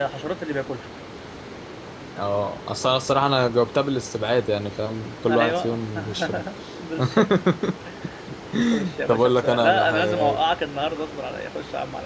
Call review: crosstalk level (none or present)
present